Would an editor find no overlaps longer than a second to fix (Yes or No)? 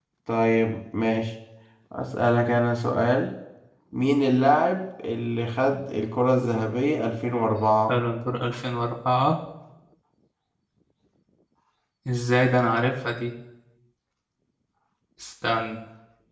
Yes